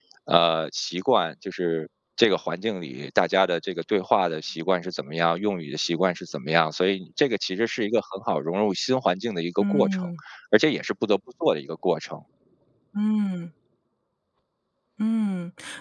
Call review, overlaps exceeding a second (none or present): none